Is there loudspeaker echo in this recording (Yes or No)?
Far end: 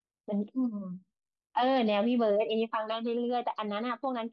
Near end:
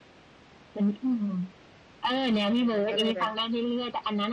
Yes